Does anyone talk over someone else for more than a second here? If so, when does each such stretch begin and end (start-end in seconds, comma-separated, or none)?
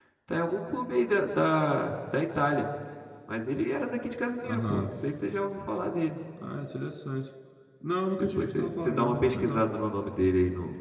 8.2-9.6